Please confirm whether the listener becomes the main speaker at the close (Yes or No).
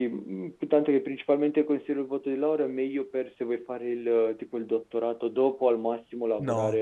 No